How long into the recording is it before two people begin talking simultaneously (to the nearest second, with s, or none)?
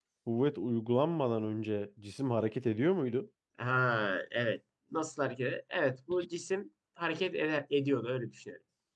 none